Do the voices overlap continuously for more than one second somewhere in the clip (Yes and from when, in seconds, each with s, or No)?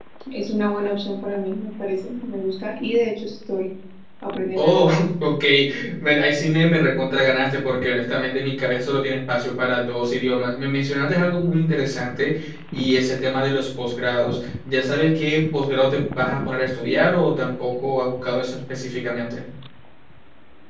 No